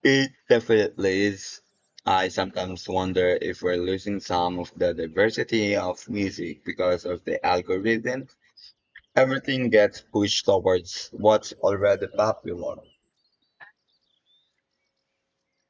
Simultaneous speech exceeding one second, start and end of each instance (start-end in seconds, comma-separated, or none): none